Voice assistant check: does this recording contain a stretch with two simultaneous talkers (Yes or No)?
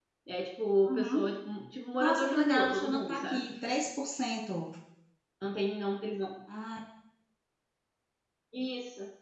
Yes